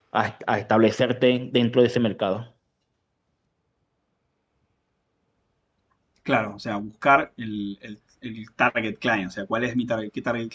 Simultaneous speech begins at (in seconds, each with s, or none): none